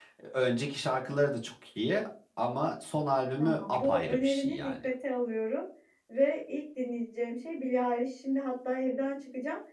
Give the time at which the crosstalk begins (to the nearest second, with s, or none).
3 s